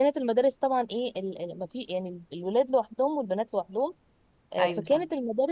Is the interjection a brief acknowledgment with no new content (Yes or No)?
Yes